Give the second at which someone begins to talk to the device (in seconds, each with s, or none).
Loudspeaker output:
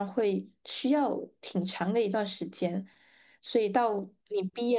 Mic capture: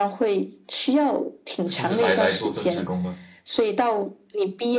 1.7 s